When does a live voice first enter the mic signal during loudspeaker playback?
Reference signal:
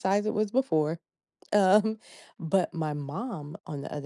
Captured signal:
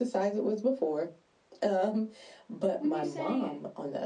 2.8 s

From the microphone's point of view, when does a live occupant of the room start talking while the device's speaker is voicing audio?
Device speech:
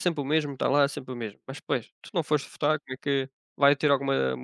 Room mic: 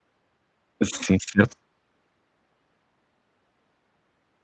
0.8 s

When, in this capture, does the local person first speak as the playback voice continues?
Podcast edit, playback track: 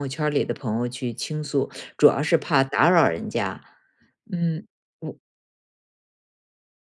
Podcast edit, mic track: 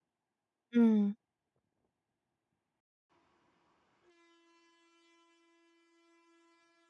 0.7 s

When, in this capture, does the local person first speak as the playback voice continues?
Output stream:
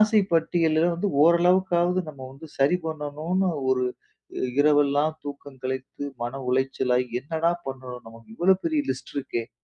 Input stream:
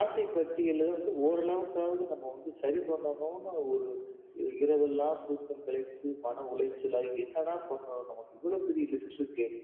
none

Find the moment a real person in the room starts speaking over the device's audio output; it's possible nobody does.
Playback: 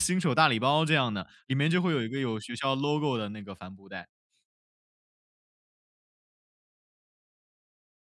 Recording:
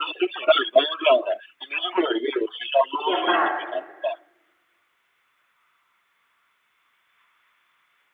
3.0 s

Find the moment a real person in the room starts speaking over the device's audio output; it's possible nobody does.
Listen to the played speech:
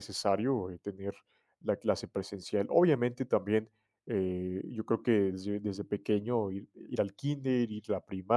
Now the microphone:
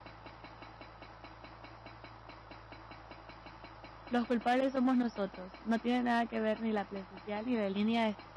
4.1 s

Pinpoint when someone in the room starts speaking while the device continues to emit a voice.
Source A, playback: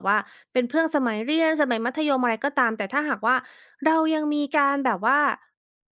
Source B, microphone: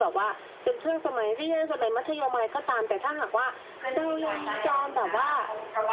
3.8 s

